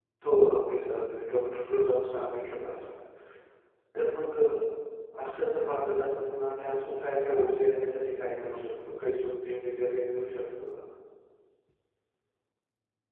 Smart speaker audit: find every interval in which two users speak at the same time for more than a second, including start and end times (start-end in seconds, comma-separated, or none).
none